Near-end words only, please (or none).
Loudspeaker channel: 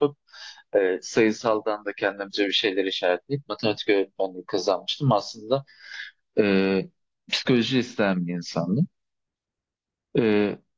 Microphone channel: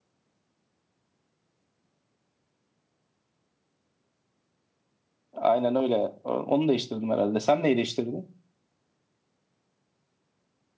Aynen öyle. O- Onu değiştirdim herhalde. Sen neyi değiştirdin?